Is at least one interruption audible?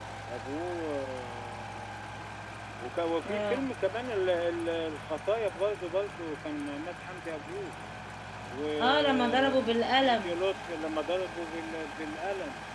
Yes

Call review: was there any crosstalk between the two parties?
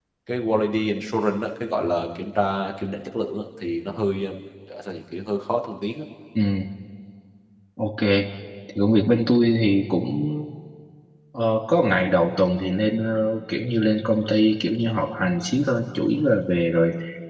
No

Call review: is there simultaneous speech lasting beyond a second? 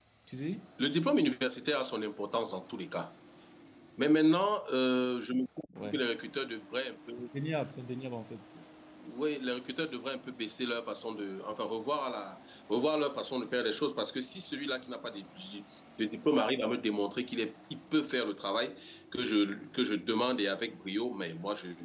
No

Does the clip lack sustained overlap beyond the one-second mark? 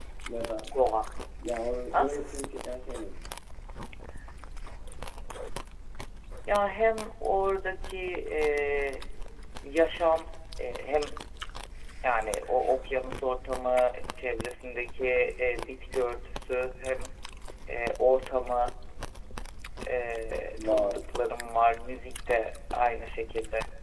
Yes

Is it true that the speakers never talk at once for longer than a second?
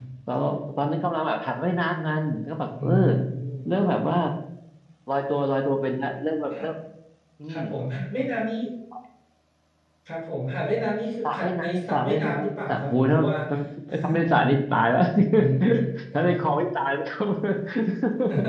No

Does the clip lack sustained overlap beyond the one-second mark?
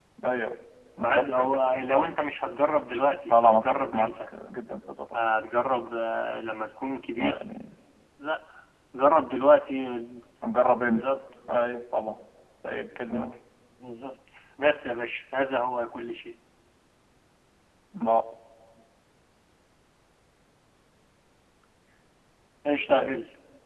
No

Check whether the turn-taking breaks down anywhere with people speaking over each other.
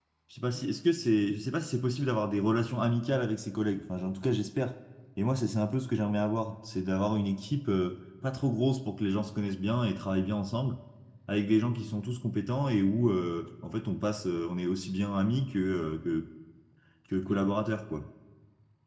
No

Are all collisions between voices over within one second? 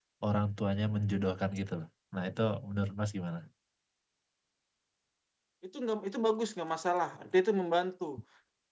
Yes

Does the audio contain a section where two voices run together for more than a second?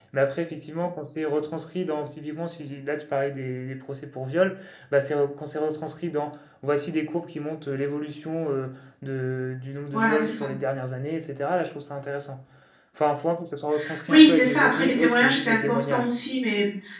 Yes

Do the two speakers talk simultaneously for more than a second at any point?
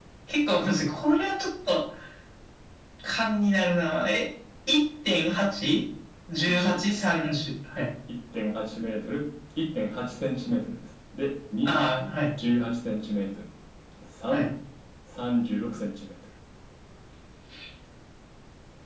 No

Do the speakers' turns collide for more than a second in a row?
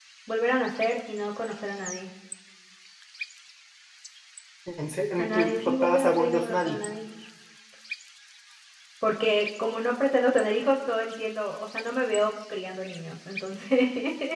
Yes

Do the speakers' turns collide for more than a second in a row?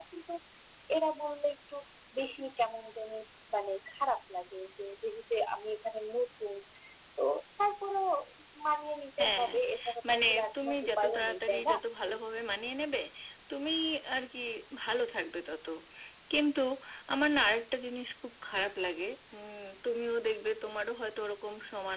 Yes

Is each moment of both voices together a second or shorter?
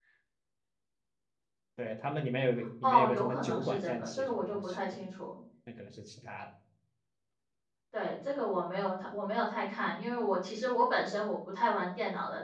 No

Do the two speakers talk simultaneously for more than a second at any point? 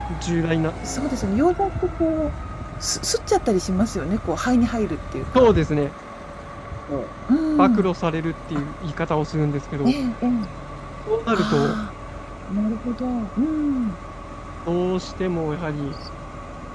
No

